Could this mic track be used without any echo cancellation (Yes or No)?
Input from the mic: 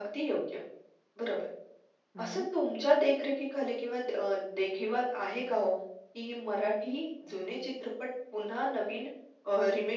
No